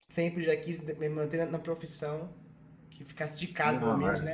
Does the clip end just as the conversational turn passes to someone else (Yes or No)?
No